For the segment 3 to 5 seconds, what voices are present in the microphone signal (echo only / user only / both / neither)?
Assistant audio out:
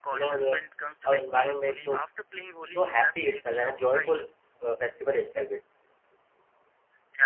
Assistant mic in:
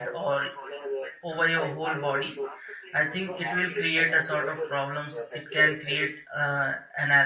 both